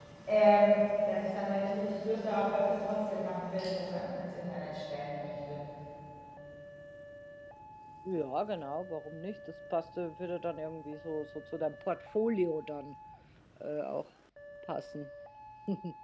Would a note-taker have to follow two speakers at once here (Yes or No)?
No